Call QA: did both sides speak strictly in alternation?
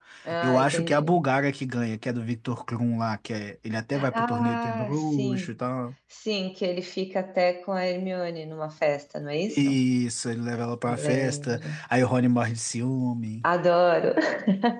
No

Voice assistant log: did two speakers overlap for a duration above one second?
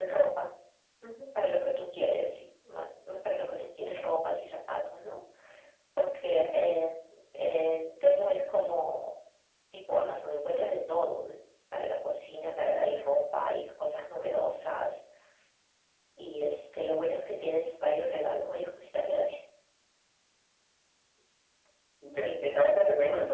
No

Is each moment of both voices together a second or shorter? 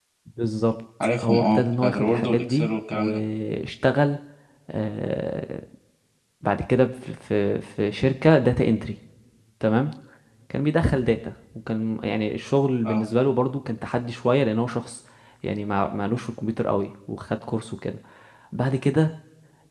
No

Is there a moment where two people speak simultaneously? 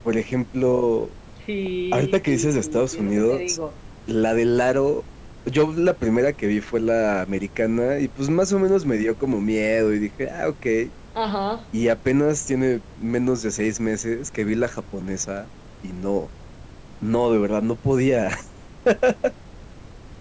Yes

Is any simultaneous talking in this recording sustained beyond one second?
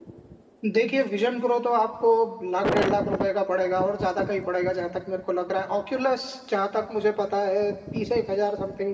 No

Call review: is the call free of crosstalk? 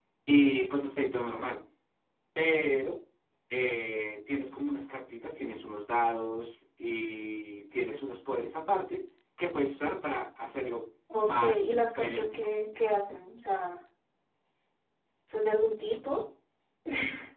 No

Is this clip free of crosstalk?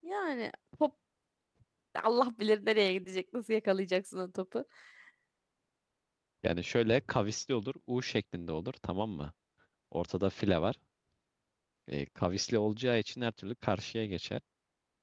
Yes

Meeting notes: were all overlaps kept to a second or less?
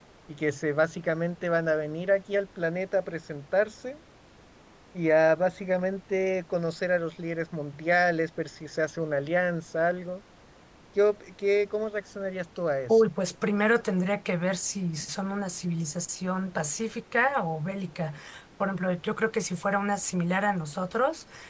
Yes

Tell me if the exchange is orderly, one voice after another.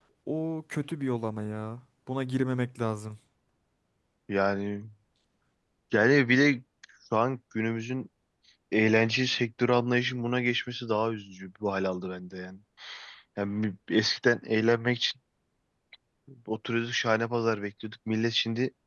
Yes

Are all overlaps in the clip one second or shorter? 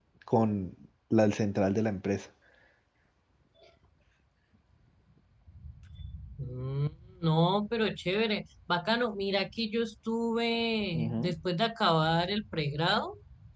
Yes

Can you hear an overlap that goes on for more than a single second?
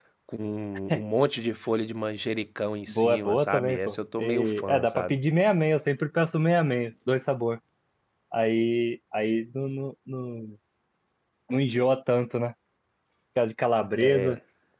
Yes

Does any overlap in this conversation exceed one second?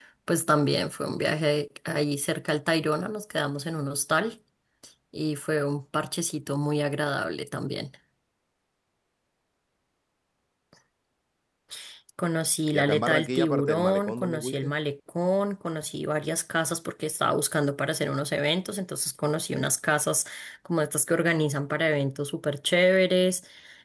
Yes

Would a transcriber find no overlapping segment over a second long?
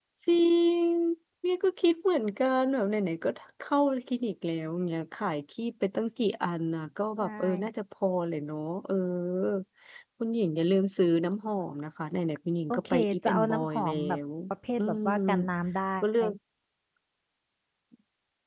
No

